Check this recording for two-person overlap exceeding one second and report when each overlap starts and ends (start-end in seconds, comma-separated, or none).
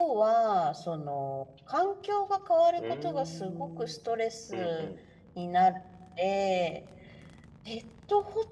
2.8-4.0